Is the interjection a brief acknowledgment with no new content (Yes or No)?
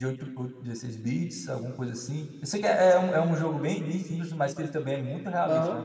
No